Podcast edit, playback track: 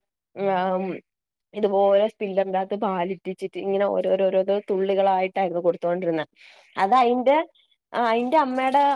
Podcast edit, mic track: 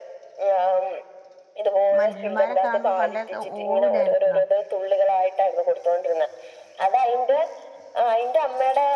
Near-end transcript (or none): മനുഷ്യന്മാരെ കാണുമ്പോ പണ്ടേ ഓടൂലായിരുന്നോ